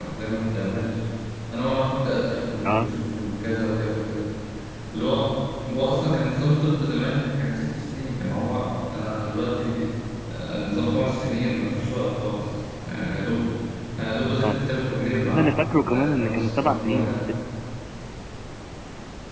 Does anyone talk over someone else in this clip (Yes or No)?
Yes